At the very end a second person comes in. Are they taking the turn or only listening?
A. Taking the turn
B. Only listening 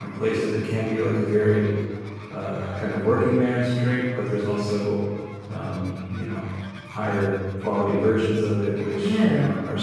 B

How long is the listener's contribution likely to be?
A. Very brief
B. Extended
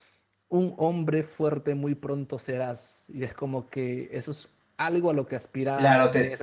B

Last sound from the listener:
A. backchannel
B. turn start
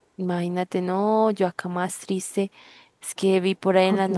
A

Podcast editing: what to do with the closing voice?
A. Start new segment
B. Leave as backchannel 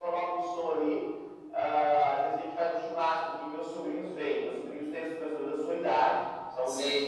B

